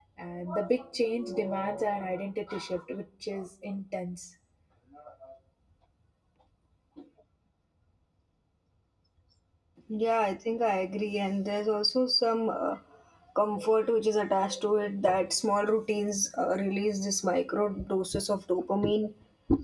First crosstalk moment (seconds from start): none

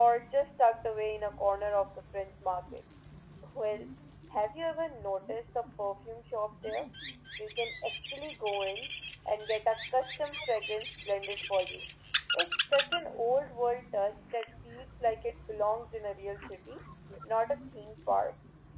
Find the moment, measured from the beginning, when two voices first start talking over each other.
none

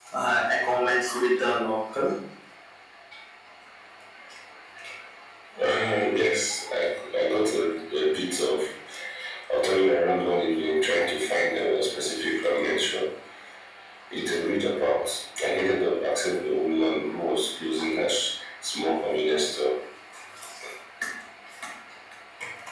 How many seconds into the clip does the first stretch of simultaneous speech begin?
none

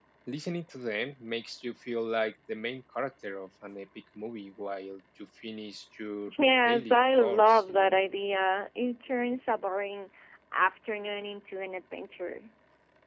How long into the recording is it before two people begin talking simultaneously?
7 s

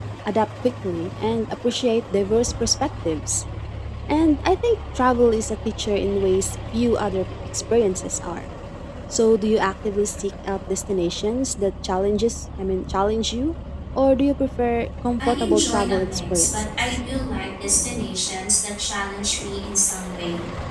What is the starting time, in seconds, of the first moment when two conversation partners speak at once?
15 s

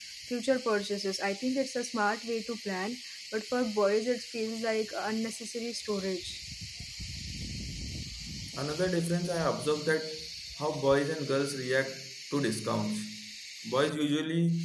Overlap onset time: none

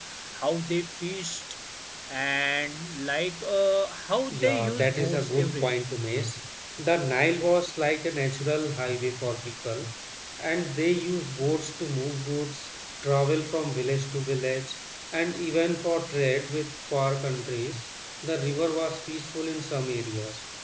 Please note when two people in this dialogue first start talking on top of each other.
4 s

